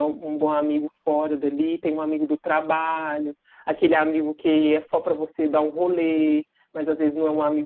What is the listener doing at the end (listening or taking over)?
listening